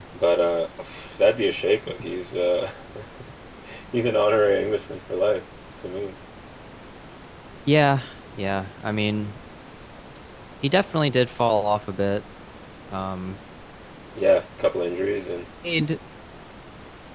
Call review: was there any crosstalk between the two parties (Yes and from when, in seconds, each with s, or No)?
No